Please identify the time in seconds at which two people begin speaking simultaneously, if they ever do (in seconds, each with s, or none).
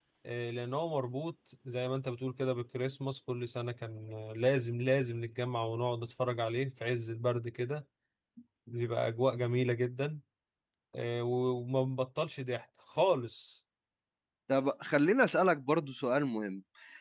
none